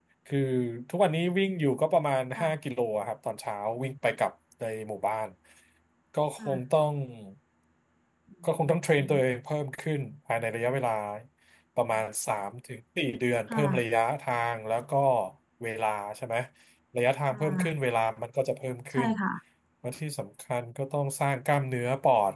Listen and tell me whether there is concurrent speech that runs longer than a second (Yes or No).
No